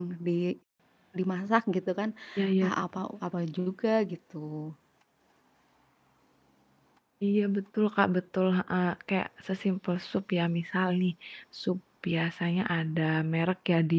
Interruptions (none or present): none